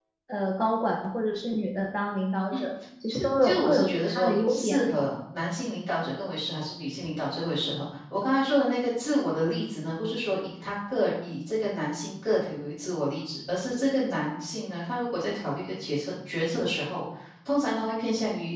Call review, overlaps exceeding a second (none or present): present